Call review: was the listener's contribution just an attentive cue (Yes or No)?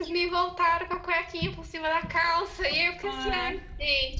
Yes